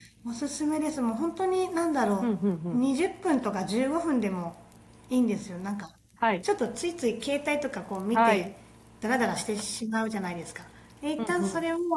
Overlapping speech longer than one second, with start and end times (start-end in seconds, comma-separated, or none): none